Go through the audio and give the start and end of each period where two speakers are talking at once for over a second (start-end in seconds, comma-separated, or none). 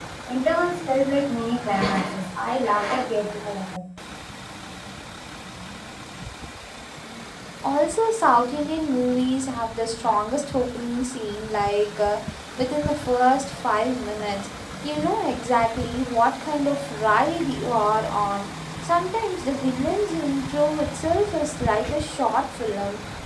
none